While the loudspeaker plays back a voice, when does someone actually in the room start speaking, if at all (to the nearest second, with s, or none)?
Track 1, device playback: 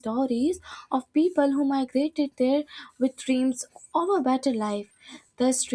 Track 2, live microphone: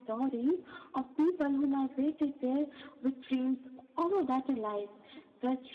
none